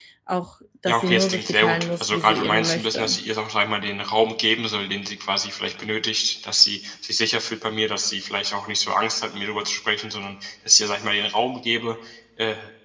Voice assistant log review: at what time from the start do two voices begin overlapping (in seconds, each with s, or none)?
0.9 s